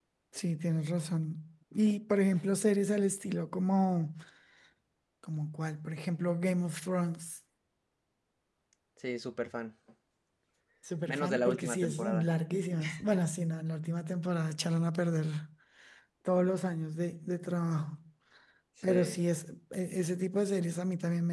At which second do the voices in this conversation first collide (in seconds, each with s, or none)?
11.1 s